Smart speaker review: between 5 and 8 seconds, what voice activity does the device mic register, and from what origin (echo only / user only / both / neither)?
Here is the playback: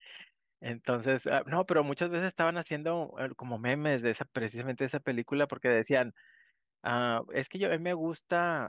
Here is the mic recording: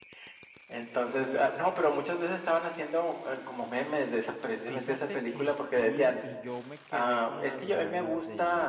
both